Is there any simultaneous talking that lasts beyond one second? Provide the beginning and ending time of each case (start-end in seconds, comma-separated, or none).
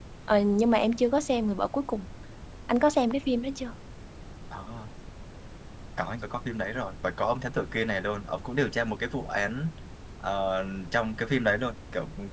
none